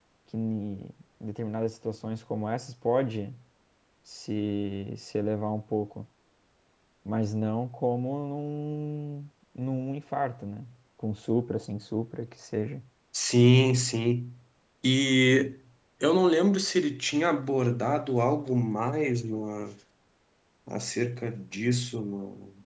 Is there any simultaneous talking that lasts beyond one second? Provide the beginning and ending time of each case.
none

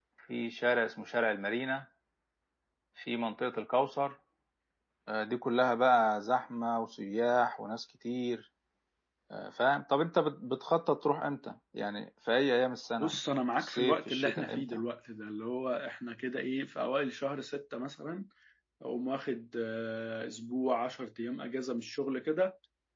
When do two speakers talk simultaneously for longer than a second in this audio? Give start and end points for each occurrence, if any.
13.6-14.8

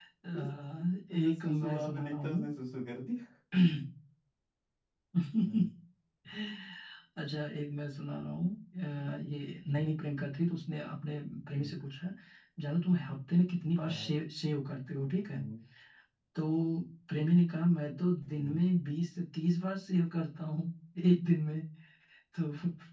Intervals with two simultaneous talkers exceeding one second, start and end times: 1.2-2.4

